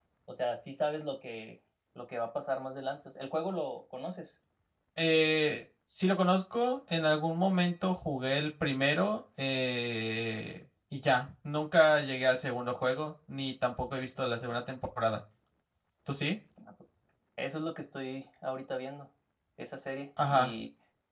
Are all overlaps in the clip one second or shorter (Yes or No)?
Yes